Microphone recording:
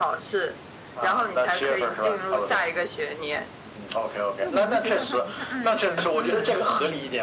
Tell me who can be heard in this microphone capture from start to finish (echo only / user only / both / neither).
both